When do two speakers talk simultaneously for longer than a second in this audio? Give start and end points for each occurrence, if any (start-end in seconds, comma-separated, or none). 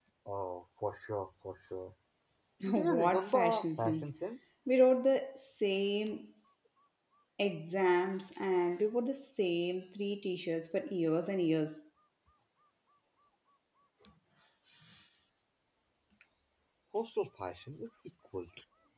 2.7-4.1